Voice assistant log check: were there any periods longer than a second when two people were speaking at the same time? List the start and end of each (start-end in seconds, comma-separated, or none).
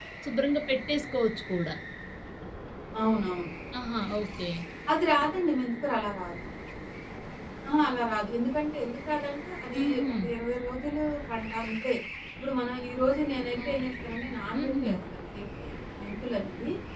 none